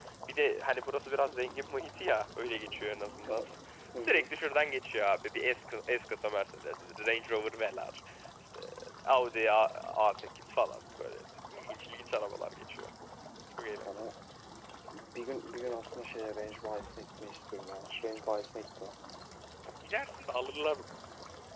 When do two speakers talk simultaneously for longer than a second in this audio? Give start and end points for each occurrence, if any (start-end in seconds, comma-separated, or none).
none